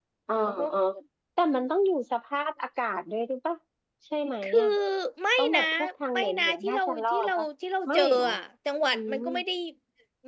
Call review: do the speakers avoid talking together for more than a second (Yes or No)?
No